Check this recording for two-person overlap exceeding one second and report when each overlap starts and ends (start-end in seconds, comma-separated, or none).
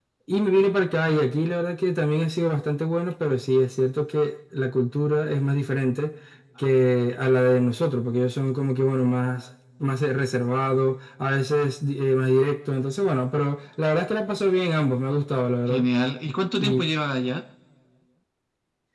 none